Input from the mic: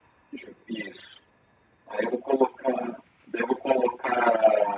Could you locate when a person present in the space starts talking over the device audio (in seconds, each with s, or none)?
none